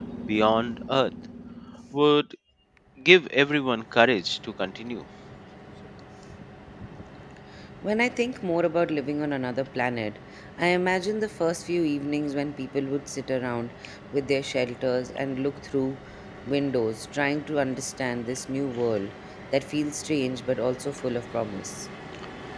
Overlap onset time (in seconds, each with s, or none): none